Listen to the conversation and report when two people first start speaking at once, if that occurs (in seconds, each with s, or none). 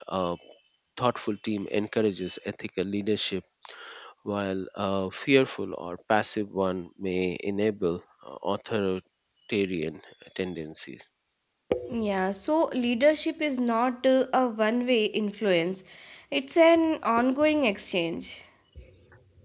none